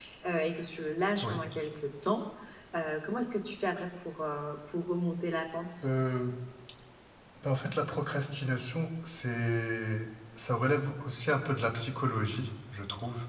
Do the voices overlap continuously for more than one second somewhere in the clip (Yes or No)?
No